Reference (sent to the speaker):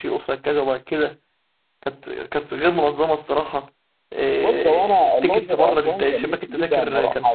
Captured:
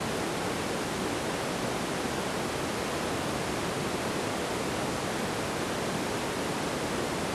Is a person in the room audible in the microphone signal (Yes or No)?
No